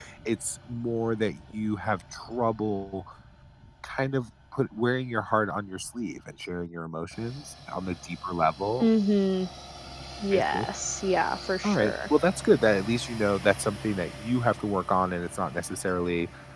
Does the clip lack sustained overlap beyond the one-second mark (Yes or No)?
Yes